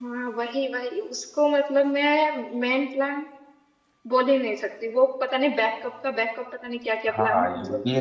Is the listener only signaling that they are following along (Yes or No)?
No